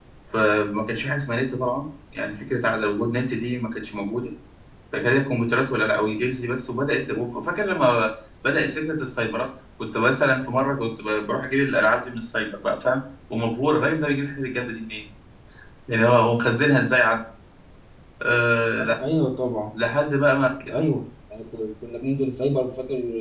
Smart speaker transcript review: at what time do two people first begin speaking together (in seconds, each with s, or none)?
none